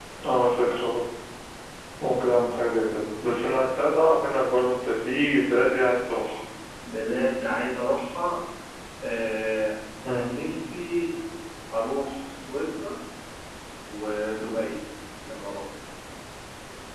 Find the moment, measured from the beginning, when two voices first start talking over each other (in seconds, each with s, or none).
none